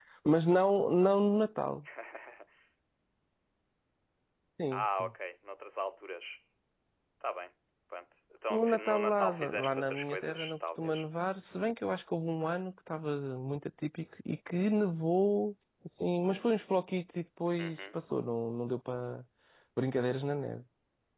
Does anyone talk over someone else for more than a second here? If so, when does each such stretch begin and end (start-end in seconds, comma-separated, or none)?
8.5-11.0